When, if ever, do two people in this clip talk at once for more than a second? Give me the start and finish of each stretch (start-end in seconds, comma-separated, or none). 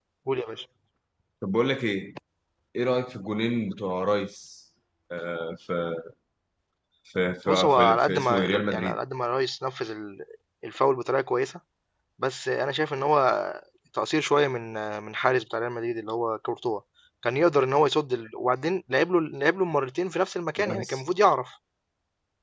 7.5-9.0